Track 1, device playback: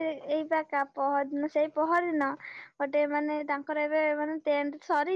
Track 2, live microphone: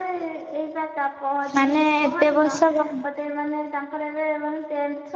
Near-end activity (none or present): present